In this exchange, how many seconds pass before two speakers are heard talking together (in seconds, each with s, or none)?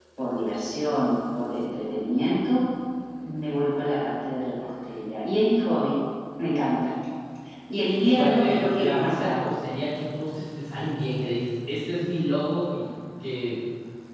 8.1 s